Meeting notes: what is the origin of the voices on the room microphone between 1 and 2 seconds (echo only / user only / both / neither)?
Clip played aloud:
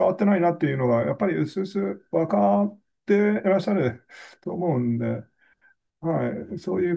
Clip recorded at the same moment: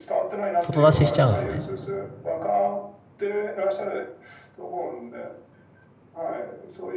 both